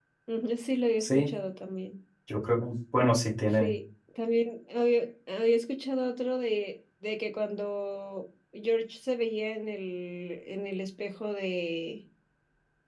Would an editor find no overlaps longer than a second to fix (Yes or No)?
Yes